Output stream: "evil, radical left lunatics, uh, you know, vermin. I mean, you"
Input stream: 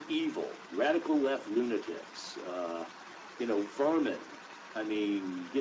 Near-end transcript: none

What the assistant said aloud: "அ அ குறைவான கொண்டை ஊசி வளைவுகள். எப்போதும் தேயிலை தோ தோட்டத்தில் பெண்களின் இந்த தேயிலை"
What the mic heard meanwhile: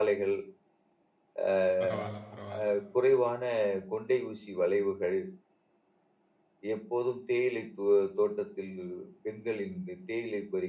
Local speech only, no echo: பரவால்ல, பரவால்ல.

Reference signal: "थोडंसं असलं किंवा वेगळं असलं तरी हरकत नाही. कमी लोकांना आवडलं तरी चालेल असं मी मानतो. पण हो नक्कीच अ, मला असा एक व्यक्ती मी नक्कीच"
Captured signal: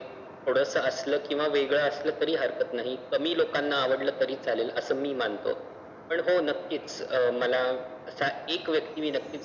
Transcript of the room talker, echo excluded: none

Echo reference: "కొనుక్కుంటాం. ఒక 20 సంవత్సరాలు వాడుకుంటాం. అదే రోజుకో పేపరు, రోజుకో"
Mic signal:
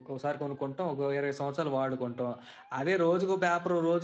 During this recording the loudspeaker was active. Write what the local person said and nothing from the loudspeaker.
none

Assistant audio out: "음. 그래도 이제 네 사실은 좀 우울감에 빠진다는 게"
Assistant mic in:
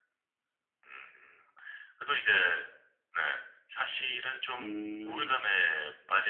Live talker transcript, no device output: 음.

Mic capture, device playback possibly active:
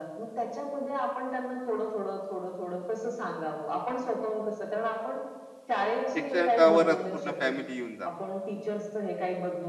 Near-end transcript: शिक्षकावरच पूर्ण फॅमिली येऊन जातात

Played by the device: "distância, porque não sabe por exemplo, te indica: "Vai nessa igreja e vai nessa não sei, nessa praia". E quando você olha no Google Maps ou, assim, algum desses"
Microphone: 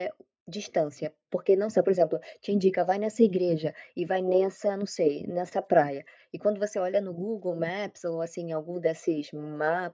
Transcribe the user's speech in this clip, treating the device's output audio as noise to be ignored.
none

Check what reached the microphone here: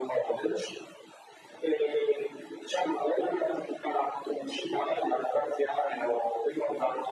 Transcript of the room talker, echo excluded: none

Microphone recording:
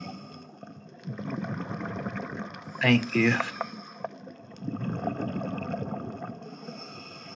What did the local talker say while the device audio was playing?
Thank you.

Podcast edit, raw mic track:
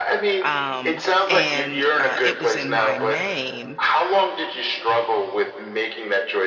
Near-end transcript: um, and uh, it was in my name,

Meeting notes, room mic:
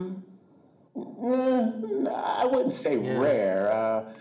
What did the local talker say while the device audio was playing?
Yeah.

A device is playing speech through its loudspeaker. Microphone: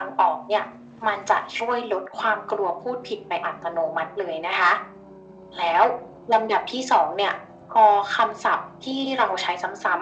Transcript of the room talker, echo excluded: none

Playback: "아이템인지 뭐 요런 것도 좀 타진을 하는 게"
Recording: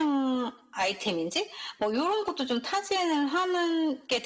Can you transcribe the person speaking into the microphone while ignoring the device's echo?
none

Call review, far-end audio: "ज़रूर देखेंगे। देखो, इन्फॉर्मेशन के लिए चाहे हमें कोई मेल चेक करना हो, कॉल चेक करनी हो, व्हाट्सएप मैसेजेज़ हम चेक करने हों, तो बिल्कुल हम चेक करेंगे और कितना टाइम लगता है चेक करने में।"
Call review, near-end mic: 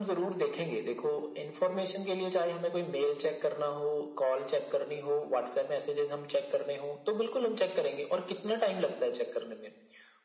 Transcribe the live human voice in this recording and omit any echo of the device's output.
none

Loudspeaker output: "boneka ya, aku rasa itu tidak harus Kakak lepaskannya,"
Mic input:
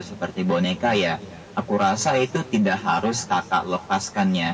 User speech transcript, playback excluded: none

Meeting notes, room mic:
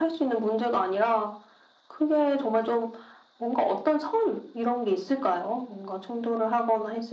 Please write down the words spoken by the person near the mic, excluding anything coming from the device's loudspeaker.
none

